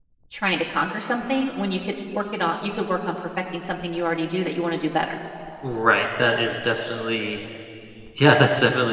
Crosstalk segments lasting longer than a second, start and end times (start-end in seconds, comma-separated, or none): none